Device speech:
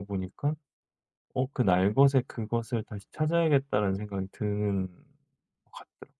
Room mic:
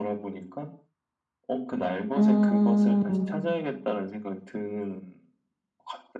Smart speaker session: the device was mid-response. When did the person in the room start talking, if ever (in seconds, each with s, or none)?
2.1 s